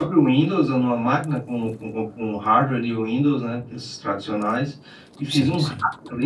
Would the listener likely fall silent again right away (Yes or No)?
Yes